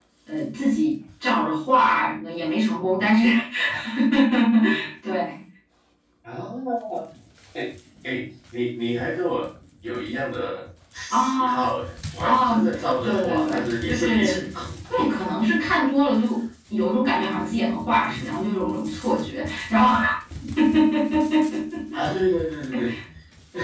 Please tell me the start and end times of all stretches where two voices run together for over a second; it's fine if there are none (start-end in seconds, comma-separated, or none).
13.0-14.4